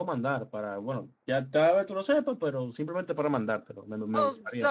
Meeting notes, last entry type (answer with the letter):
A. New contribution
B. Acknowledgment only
A